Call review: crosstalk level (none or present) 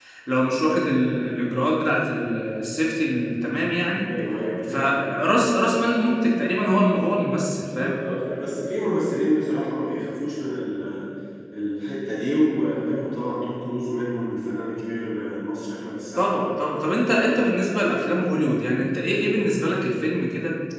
present